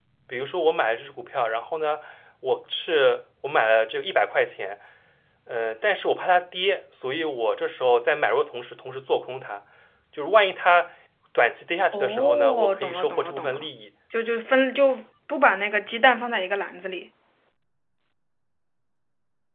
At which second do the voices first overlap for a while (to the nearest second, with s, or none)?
12 s